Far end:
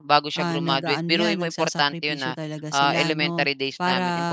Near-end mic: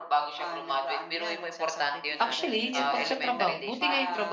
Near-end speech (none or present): present